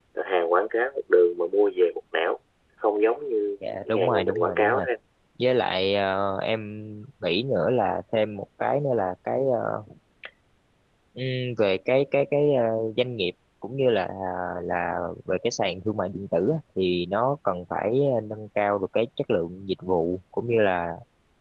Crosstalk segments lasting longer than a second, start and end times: 3.6-4.8

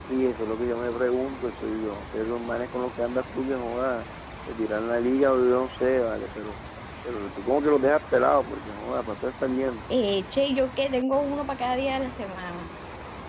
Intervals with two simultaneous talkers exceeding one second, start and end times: none

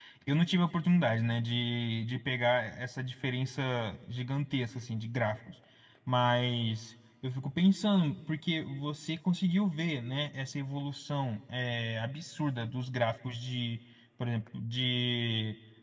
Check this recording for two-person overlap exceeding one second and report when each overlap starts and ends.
none

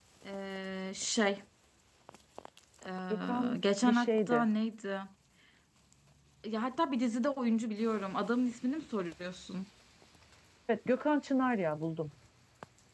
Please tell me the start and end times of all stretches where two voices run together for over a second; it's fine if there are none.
3.1-4.5

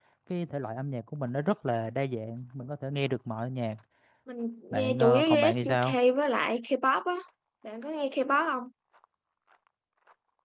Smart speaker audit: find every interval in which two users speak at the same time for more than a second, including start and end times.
4.7-6.0

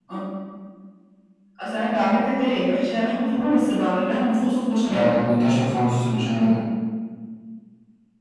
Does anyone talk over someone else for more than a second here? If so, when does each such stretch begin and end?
none

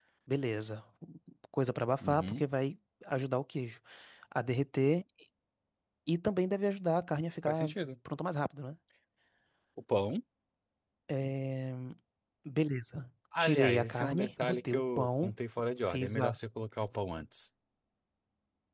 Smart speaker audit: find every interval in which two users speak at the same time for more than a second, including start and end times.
13.4-15.3

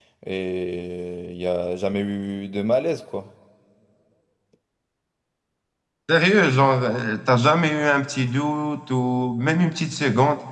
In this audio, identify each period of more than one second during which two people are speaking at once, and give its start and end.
none

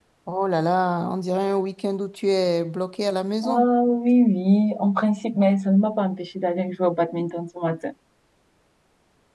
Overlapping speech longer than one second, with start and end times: none

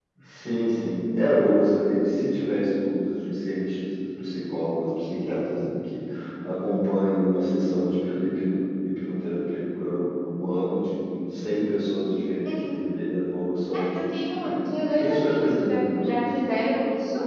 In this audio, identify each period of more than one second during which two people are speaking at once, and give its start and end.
13.7-16.2

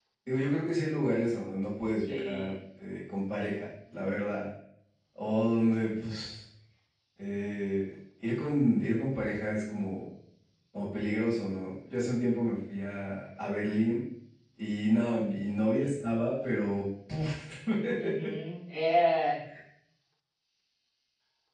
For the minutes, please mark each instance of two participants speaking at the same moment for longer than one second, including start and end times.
none

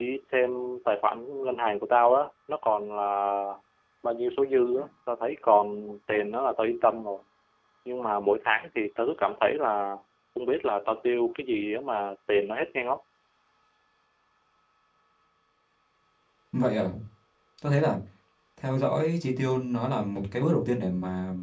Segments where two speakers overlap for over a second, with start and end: none

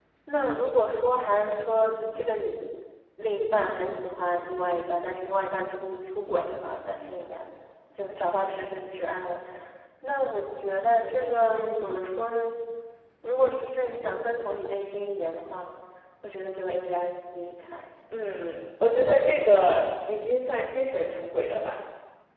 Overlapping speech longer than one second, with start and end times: none

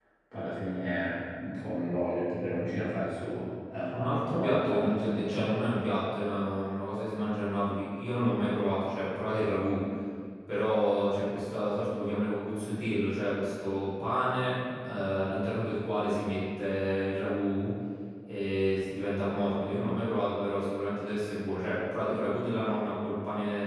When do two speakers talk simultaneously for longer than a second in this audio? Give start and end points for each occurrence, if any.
3.9-5.5

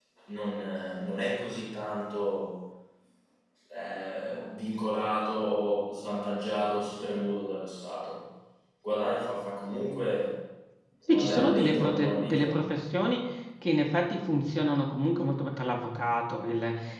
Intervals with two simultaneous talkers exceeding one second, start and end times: 11.1-12.6

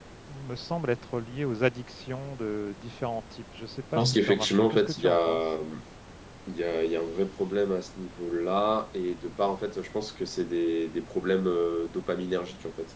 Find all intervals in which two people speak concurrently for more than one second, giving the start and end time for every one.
3.9-5.4

